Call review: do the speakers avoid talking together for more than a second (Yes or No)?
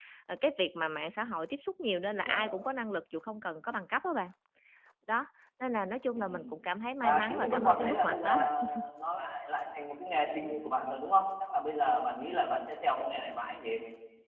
No